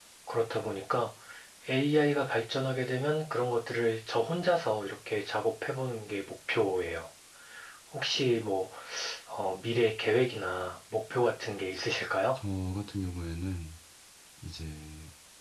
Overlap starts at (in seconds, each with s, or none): none